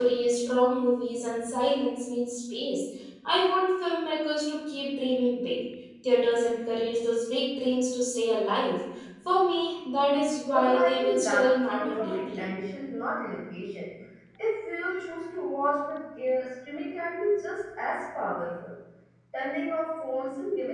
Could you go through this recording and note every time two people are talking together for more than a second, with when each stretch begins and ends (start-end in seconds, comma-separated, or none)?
10.5-12.5